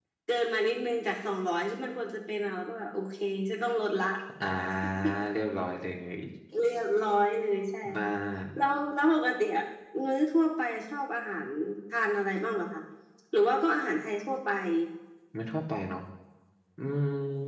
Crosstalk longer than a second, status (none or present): none